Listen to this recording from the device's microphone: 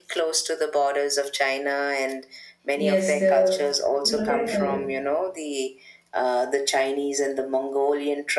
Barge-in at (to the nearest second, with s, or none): 3 s